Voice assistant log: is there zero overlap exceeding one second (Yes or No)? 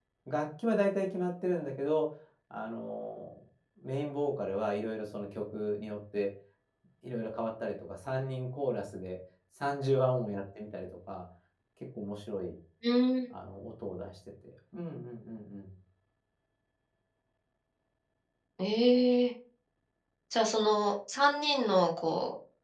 Yes